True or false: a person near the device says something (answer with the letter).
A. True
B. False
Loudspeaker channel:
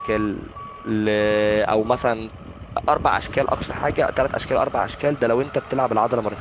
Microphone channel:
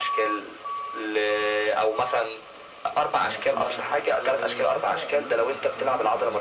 A